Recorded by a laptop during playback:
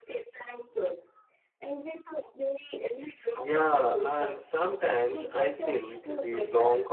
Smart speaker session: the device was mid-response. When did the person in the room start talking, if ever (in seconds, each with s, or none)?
3.3 s